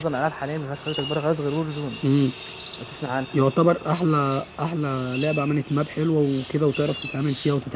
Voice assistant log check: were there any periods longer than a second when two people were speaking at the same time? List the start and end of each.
none

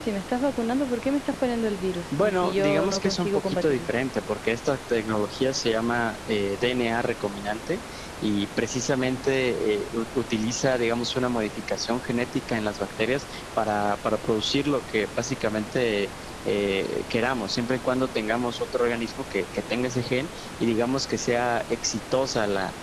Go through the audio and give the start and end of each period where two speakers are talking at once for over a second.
2.2-3.9

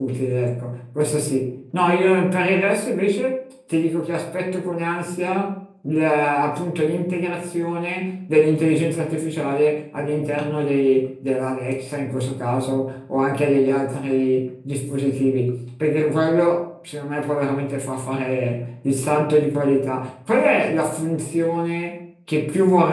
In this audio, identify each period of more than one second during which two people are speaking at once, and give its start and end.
none

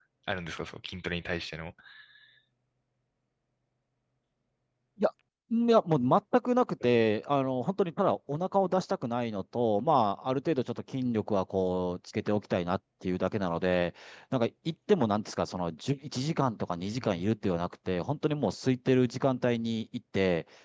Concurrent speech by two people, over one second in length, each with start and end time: none

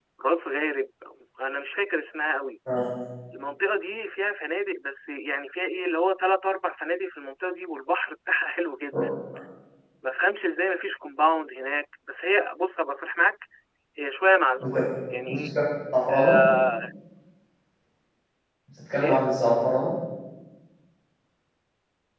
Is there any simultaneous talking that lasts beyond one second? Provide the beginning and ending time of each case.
none

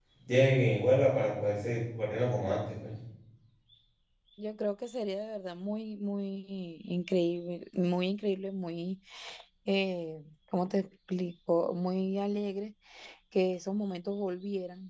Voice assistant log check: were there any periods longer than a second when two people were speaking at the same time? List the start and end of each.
none

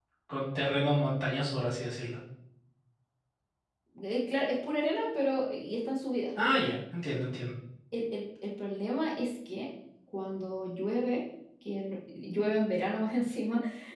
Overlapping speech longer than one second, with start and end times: none

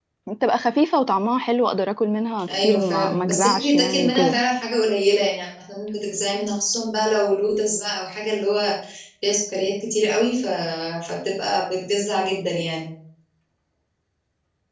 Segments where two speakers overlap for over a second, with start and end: 2.5-4.4

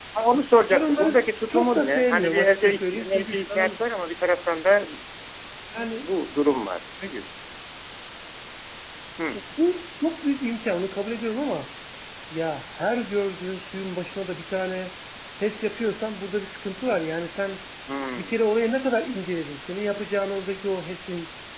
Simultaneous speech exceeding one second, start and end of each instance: 0.7-3.8

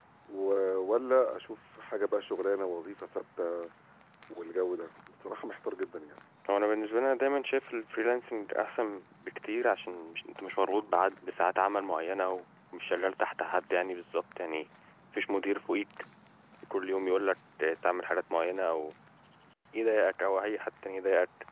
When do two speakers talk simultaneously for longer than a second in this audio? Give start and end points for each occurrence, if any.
none

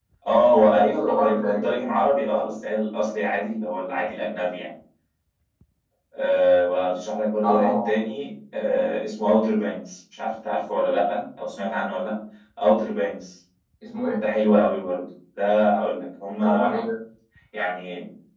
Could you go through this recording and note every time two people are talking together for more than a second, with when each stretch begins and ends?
0.6-1.8

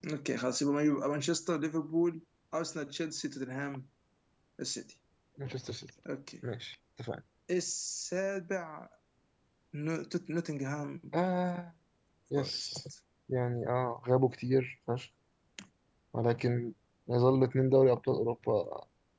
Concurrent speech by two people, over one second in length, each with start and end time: none

